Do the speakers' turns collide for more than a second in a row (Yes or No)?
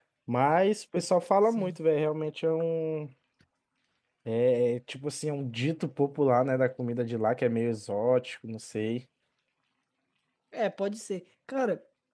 No